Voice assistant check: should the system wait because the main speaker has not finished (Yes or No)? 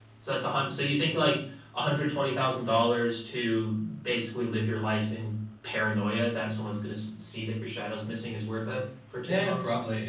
No